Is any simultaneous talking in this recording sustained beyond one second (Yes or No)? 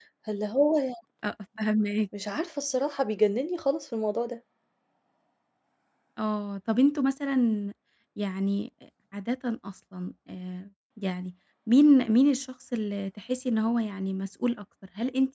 No